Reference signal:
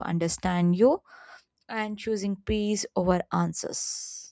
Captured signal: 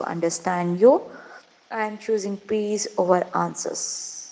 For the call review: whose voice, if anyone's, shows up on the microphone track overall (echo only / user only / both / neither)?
echo only